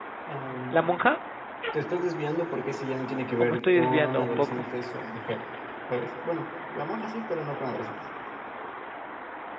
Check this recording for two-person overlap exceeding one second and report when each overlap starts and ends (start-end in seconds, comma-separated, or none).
3.4-4.6